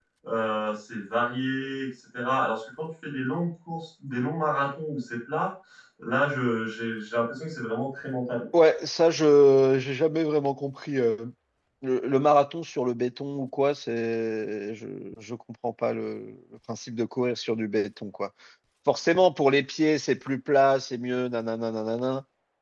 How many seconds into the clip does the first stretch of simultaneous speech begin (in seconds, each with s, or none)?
none